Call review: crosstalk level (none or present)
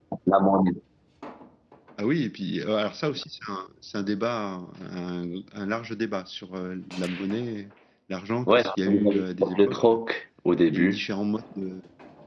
present